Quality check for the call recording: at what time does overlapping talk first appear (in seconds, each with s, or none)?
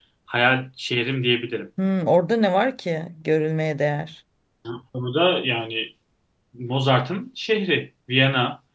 none